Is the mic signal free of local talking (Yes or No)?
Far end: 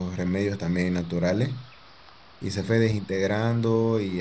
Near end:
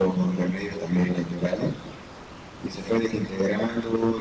Yes